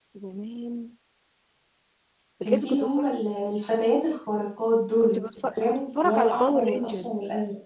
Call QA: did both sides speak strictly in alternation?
No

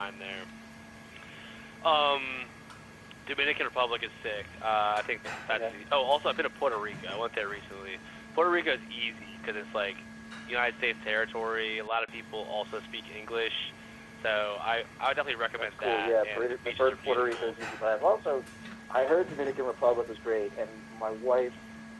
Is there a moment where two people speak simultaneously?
Yes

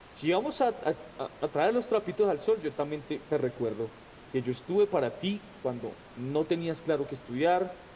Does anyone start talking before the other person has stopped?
No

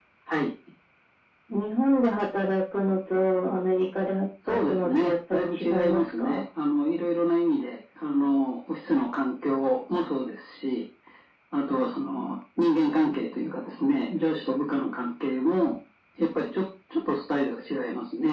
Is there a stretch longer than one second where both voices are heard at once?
Yes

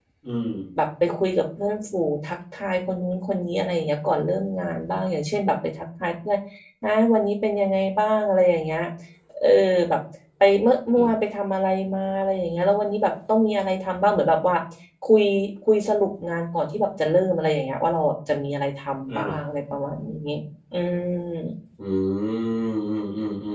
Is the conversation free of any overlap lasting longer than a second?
Yes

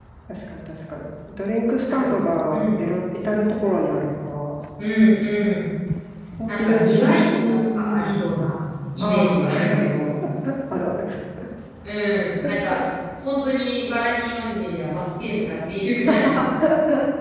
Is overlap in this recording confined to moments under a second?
No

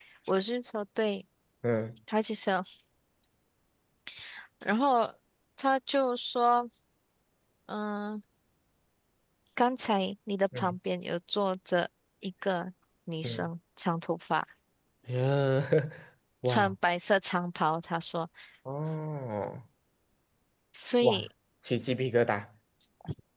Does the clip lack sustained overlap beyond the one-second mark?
Yes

